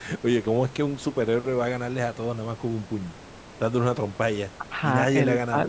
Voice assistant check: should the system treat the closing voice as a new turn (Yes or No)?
Yes